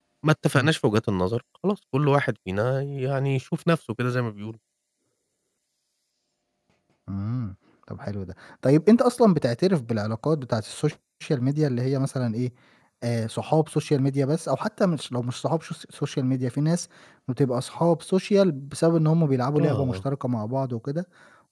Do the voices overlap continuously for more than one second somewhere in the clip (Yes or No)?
No